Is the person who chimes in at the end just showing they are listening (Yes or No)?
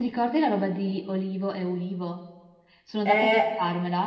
Yes